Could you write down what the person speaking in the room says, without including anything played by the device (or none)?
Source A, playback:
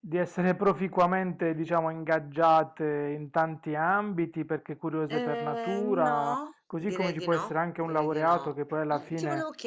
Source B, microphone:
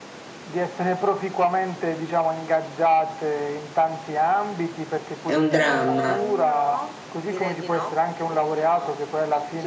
è un dramma,